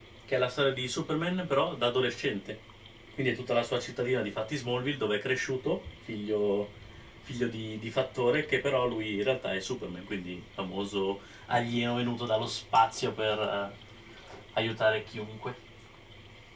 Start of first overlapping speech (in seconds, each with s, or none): none